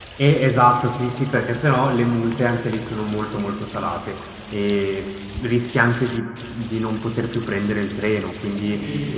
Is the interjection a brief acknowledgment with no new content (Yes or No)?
No